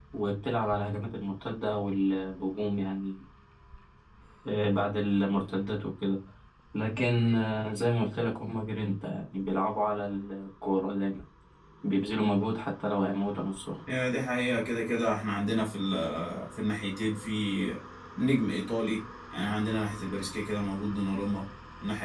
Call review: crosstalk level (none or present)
none